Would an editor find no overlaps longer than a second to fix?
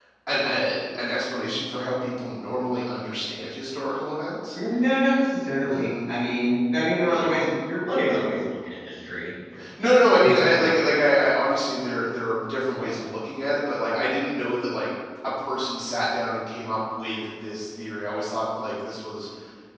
Yes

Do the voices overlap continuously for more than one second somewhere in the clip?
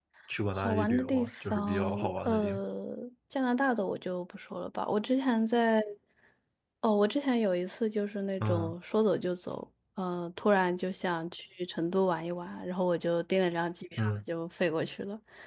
Yes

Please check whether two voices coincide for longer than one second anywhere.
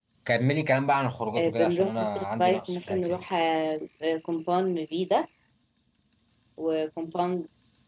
Yes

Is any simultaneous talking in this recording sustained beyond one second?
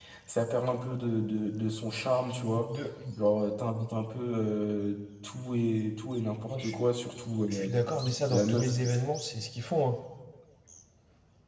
No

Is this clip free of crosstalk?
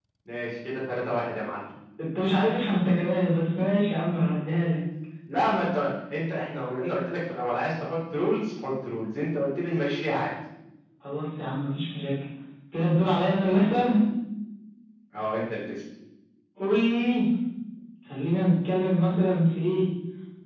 Yes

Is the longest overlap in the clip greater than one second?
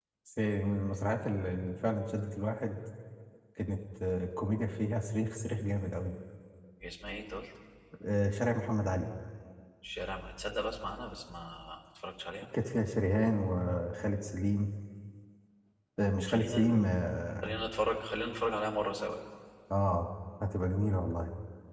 No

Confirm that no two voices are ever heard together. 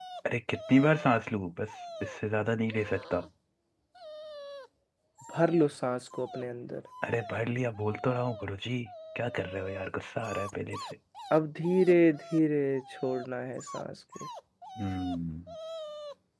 Yes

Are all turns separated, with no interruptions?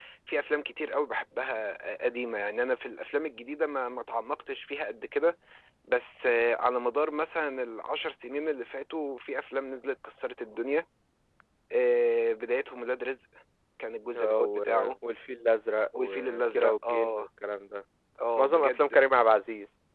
No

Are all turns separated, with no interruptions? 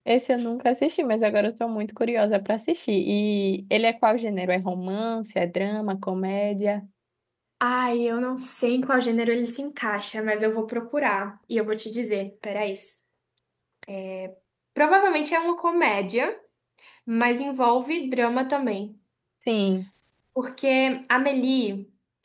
Yes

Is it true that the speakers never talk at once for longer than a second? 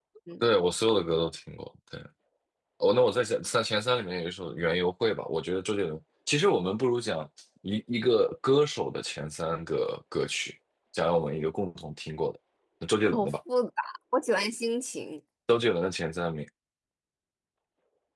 Yes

